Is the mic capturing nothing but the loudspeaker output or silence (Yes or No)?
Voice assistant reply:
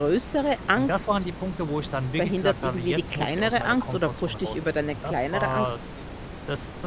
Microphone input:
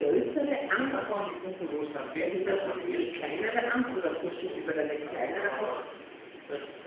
Yes